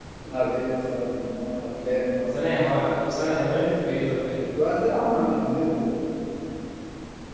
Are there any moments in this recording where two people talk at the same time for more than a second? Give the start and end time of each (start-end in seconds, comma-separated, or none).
none